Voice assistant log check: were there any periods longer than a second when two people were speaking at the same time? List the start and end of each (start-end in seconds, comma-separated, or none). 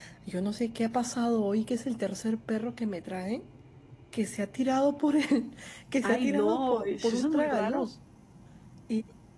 6.0-7.9